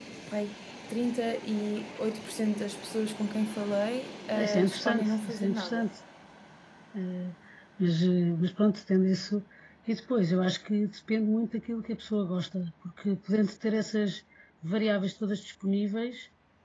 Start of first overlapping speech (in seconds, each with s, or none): 4.3 s